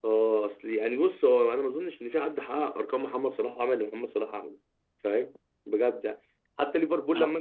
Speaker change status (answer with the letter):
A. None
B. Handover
A